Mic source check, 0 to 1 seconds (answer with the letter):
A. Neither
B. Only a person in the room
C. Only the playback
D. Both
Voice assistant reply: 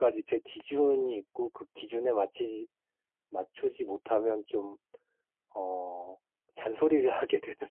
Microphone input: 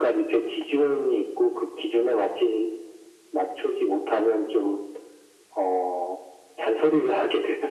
C